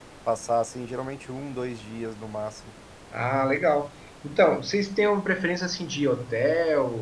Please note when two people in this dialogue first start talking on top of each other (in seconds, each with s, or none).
none